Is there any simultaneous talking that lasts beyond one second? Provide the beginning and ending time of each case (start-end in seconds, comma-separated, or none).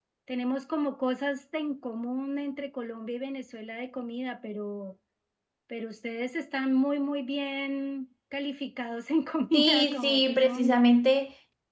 9.5-10.8